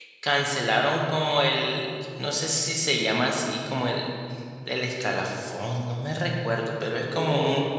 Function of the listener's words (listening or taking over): taking over